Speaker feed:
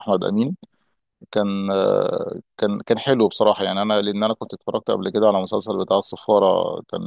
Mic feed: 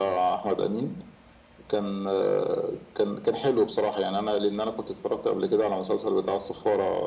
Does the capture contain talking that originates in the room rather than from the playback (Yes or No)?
No